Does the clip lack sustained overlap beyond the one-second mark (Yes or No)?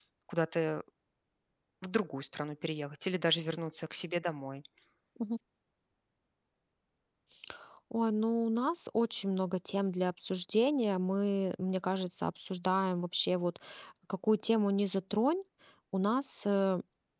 Yes